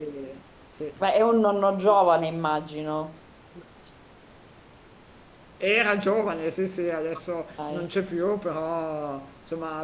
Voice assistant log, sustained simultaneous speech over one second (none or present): none